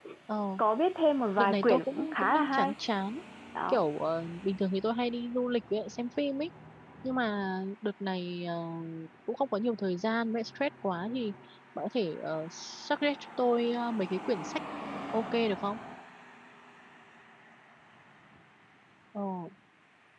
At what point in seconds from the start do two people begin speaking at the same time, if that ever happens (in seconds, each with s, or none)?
1.4 s